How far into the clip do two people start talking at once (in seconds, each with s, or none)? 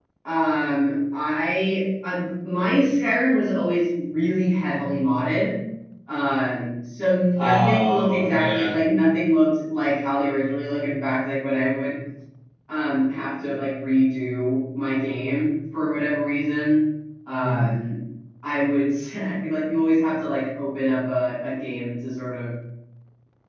7.4 s